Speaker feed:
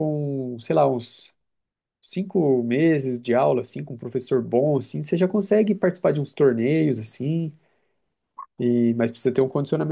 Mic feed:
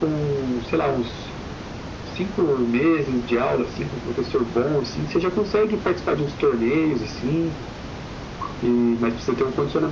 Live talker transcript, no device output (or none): none